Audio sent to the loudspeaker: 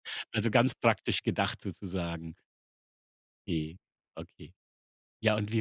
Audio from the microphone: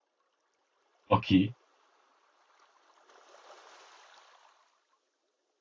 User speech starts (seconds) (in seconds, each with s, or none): 1.1 s